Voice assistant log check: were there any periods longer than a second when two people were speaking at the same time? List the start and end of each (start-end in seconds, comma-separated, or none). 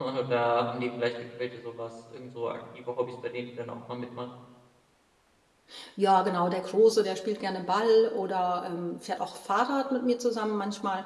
none